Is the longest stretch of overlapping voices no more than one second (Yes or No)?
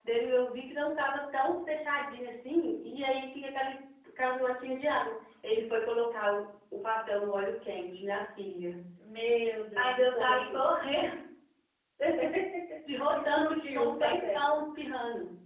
No